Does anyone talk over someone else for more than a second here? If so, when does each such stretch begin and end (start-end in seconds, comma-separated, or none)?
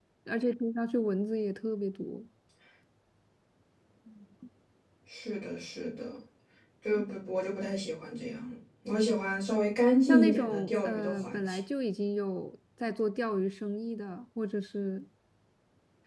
10.1-11.6